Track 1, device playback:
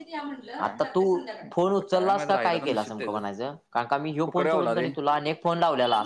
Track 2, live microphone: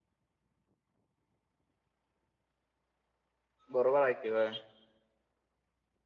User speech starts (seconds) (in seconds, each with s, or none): 3.7 s